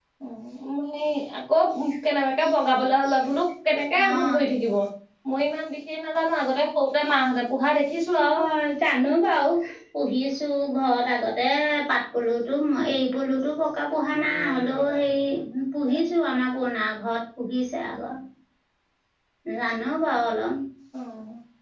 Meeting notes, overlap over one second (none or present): none